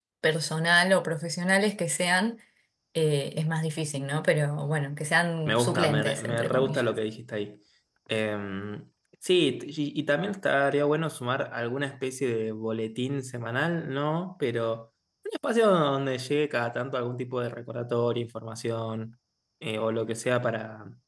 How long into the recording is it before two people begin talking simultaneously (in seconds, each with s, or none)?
5.5 s